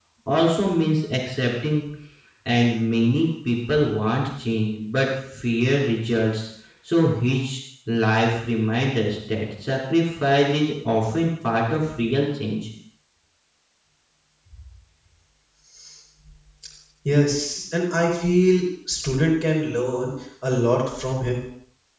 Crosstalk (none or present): none